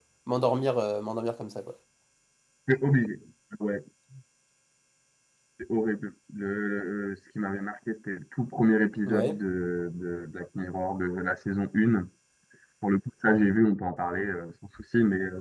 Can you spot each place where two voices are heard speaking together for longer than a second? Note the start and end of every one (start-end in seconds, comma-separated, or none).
none